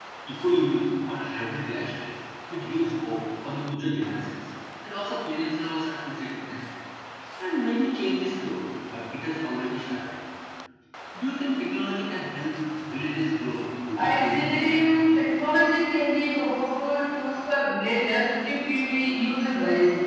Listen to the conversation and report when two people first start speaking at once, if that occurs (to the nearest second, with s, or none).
14 s